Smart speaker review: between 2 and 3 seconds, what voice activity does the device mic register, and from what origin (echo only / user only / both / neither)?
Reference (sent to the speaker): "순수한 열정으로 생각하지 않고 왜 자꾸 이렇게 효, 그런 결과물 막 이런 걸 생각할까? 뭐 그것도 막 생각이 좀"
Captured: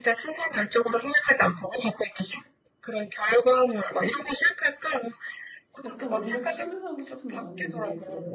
echo only